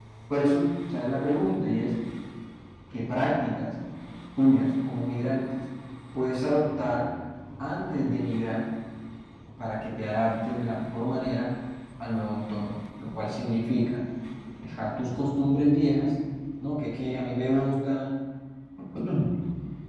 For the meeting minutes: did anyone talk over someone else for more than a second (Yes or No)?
No